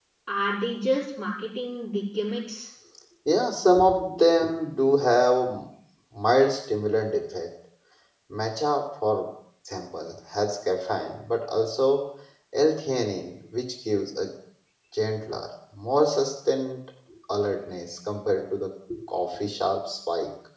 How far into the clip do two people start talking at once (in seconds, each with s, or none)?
none